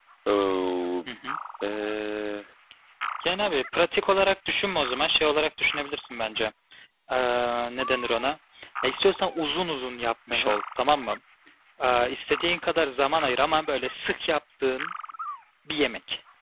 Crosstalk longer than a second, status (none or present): none